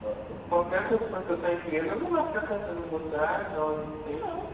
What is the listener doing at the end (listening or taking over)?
listening